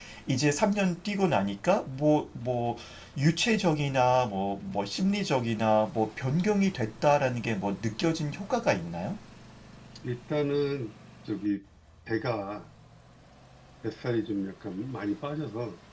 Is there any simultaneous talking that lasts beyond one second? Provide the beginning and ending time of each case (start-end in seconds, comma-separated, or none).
none